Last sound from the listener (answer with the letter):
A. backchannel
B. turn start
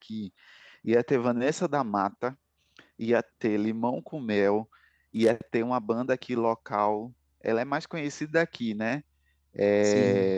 A